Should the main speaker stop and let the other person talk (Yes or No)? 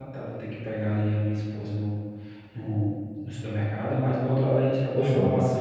No